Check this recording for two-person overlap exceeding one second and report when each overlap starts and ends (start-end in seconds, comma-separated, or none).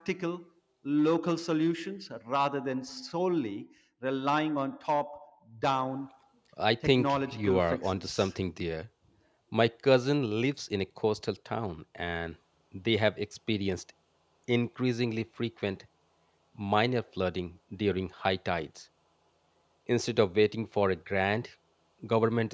6.8-8.3